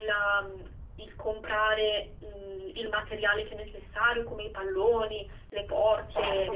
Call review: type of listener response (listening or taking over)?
listening